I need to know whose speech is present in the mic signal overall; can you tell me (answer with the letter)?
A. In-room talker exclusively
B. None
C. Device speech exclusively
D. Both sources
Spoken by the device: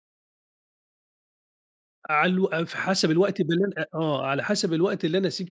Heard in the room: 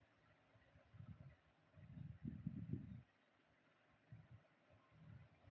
B